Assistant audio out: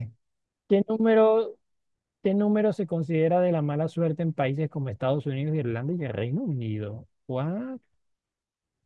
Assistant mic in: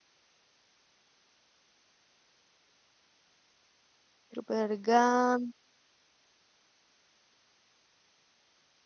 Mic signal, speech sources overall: user only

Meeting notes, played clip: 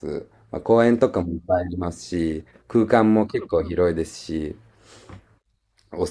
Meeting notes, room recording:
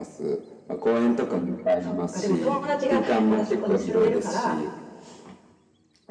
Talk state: both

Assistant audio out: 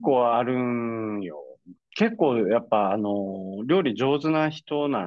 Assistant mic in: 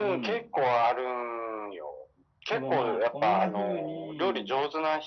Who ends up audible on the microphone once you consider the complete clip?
both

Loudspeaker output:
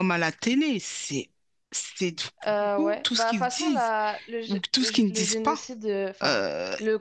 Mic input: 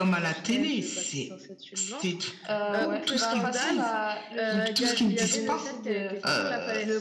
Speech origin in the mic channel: both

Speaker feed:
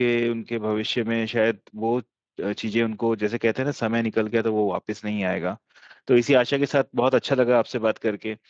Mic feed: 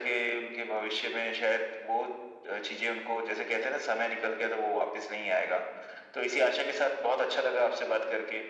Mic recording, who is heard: echo only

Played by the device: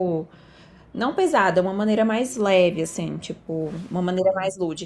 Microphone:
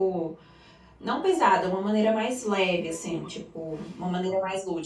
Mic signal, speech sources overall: both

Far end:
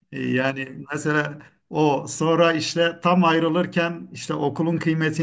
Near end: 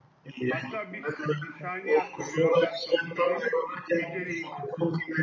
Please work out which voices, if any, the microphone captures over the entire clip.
both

